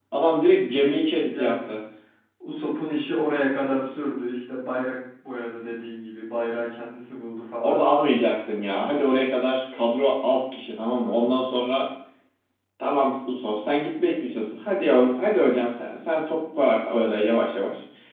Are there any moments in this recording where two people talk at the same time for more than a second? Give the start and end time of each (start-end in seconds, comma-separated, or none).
none